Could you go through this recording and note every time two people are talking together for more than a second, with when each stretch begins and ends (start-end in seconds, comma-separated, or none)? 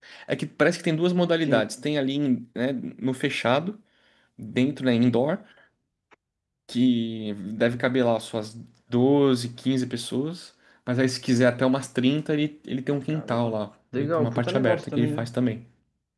13.9-15.3